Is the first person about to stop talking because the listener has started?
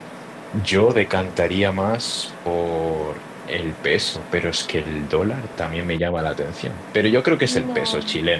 Yes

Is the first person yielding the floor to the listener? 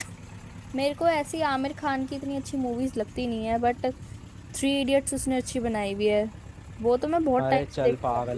Yes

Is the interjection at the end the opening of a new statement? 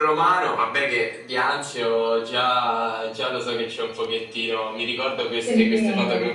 No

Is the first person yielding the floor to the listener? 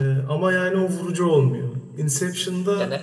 No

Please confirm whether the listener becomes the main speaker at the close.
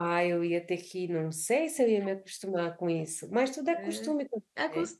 Yes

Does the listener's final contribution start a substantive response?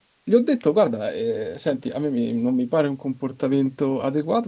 No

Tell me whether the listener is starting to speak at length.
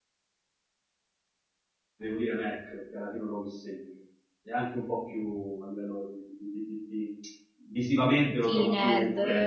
Yes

